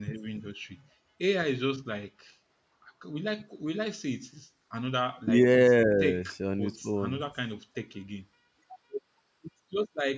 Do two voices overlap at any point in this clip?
Yes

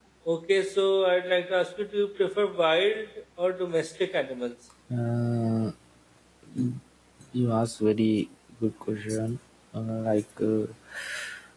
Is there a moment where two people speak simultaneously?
No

